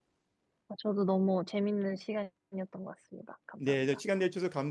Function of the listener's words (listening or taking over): taking over